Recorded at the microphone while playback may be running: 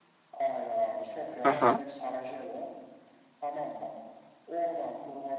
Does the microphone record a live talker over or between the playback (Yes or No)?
Yes